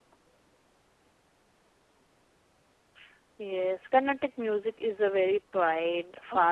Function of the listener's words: taking over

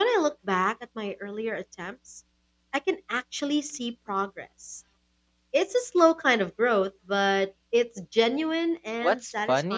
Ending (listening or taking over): taking over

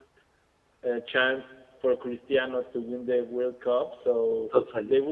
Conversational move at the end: listening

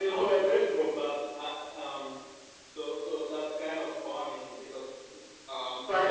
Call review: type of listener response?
listening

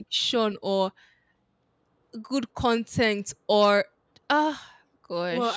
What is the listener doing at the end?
taking over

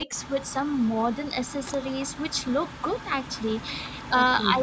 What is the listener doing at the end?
listening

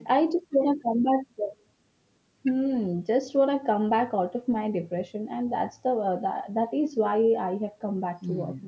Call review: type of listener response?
taking over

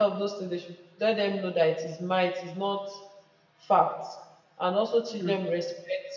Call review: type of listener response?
listening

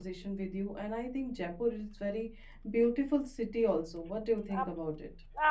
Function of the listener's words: taking over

